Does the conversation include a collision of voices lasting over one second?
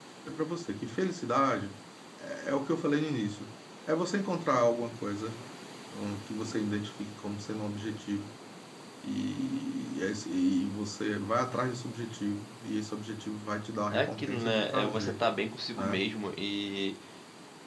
Yes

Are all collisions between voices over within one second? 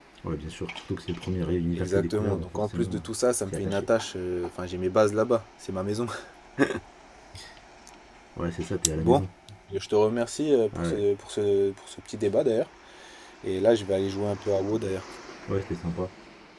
No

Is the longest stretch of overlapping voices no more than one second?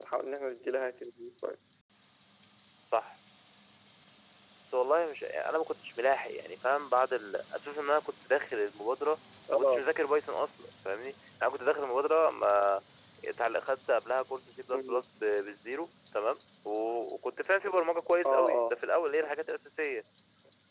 Yes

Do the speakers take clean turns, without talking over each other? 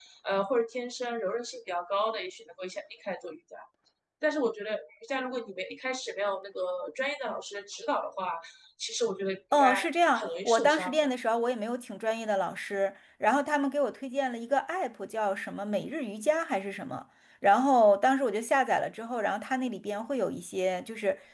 No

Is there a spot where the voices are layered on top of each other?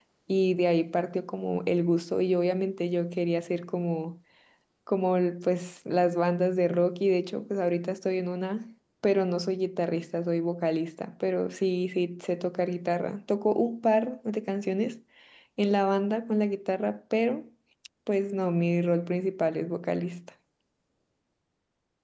No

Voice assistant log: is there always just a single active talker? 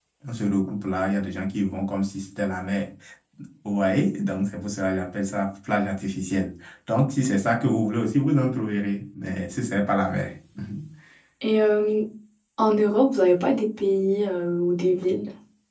Yes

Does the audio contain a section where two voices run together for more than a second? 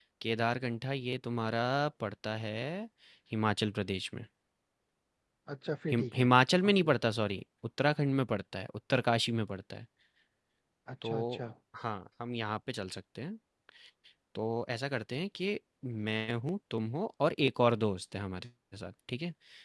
No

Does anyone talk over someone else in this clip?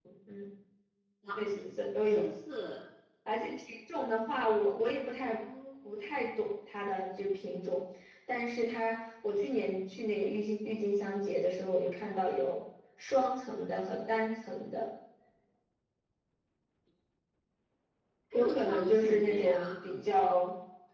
Yes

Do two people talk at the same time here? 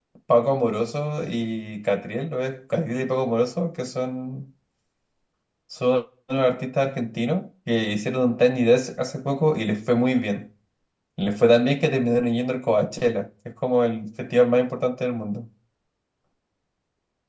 No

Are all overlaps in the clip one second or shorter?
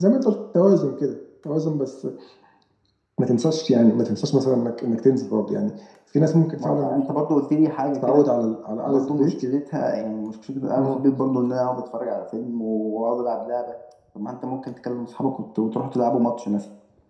Yes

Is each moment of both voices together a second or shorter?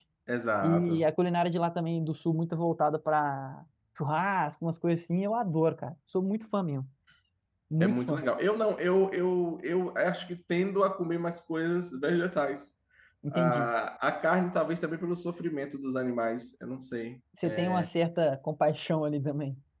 Yes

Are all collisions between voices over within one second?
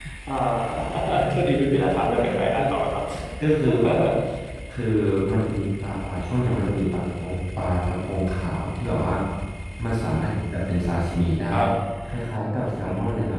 Yes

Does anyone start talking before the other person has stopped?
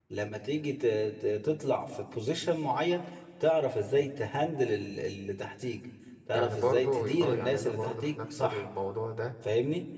Yes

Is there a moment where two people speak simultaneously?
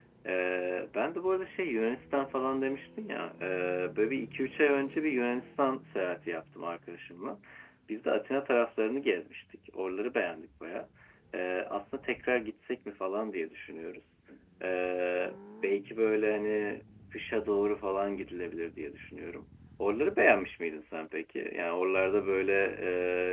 No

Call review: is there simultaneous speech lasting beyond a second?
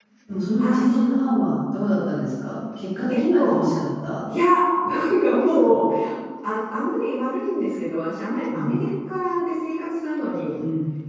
No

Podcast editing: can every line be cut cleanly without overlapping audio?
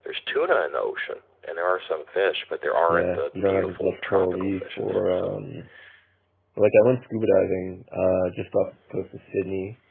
No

